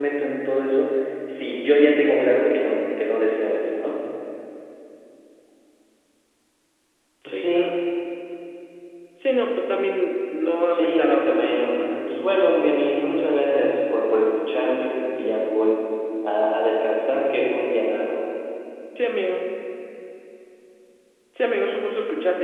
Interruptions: present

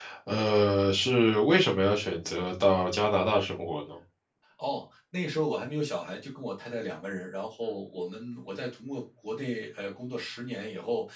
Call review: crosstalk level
none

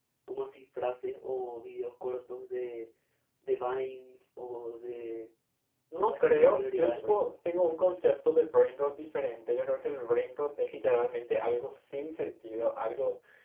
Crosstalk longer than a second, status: present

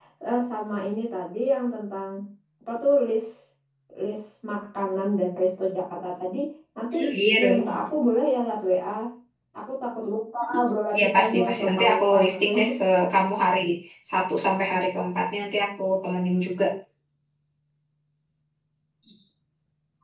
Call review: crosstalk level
present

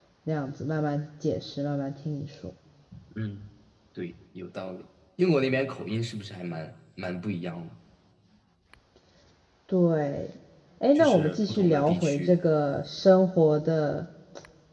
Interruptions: present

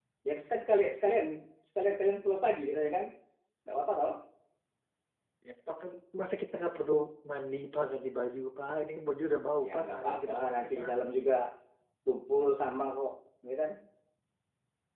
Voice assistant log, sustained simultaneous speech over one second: present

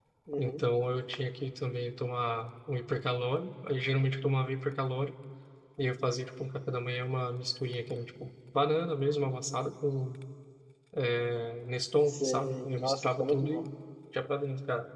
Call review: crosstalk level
present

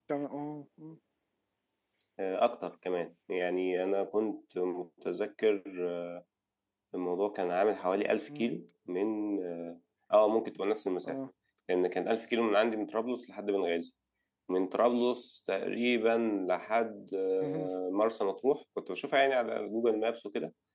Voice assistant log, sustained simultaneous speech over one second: none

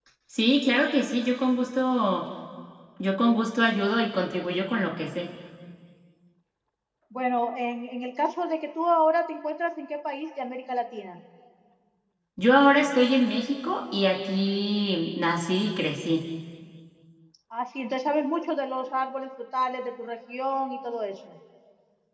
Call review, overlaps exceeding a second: none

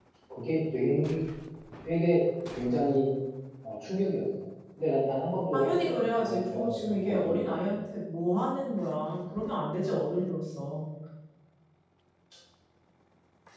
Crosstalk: present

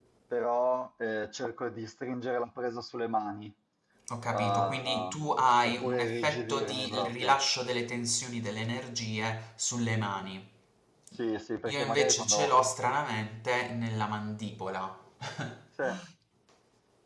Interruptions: present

